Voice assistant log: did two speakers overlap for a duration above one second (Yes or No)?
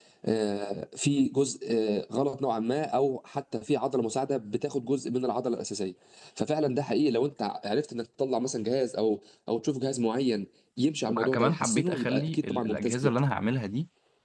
Yes